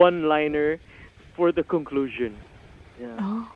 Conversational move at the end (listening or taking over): listening